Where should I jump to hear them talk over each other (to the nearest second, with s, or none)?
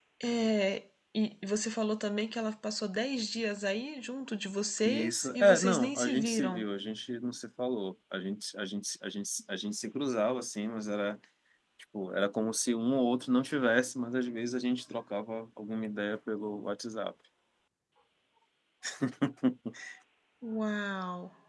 5 s